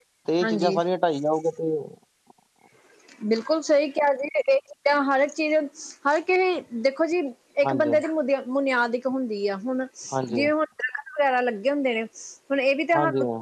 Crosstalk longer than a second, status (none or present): none